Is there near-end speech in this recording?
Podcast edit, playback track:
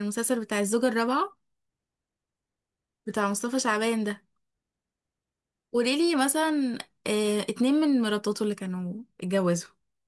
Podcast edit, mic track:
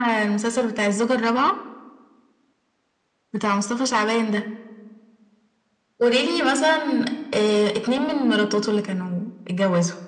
No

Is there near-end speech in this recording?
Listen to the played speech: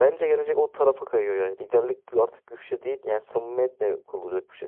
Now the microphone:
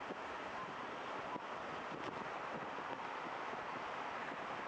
No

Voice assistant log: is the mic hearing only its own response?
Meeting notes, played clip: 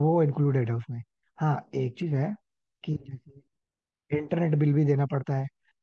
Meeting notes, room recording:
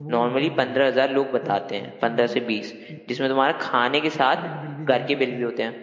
No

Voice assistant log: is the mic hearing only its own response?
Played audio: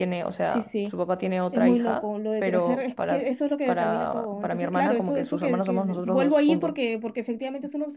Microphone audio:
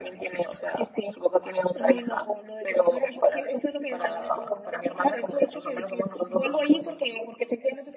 Yes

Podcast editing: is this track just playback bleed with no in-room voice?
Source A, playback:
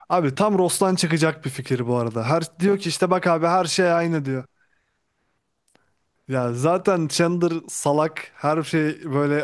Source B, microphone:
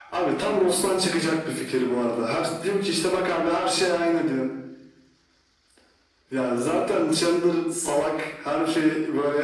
Yes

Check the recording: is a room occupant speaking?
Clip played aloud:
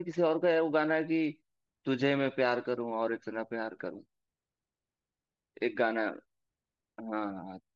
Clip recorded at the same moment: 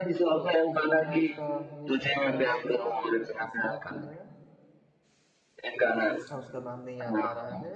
Yes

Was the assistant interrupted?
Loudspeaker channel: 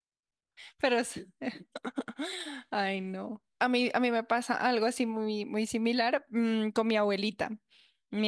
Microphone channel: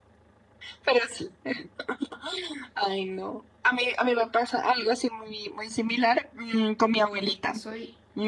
Yes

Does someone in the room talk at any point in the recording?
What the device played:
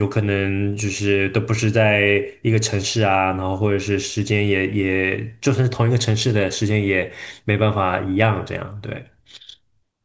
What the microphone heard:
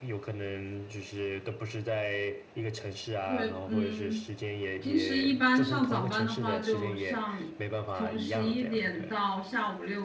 Yes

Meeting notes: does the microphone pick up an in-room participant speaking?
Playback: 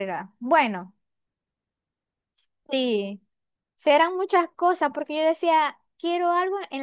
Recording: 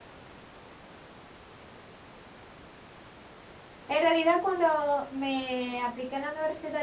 Yes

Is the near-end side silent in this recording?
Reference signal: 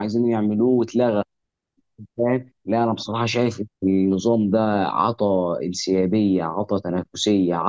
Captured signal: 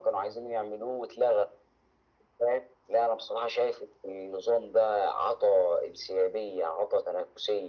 Yes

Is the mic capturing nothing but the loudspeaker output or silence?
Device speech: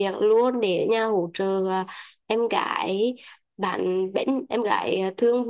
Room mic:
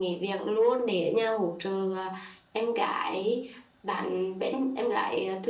Yes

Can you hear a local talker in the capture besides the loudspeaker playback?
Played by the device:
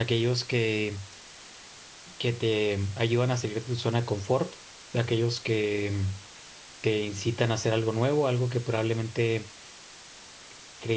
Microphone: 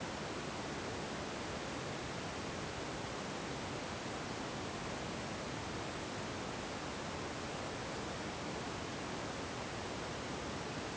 No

